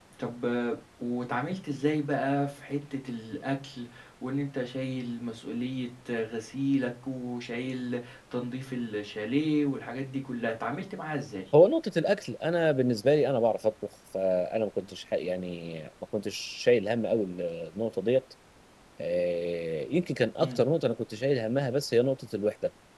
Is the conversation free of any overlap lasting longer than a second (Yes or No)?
Yes